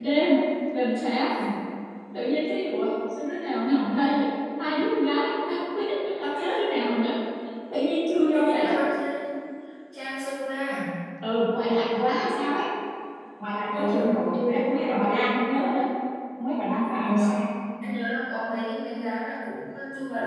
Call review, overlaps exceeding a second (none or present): none